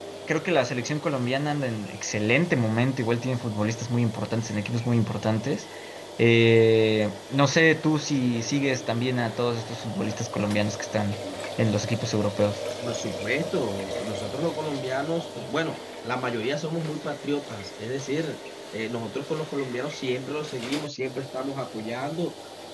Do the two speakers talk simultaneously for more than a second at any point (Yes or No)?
No